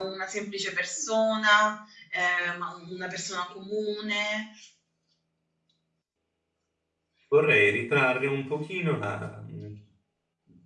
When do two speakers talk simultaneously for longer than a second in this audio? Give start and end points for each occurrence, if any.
none

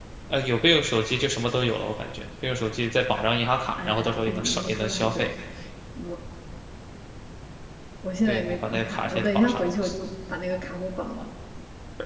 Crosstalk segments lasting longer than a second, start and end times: 3.8-5.3, 8.2-9.6

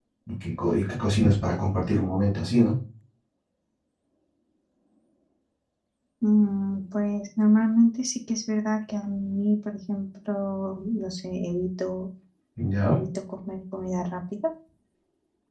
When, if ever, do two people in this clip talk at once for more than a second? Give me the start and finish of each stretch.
none

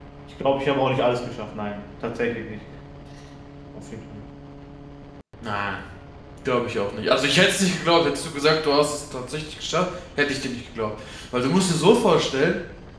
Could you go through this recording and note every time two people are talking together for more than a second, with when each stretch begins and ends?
none

